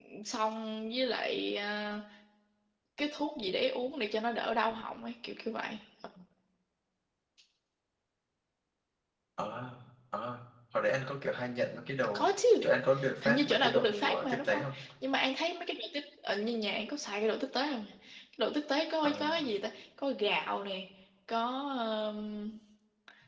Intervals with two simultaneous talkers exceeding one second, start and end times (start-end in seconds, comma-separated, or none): 13.2-14.6